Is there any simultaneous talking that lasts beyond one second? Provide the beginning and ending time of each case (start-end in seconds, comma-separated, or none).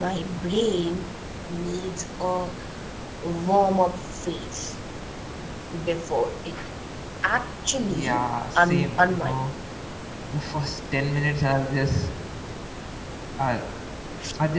7.9-9.4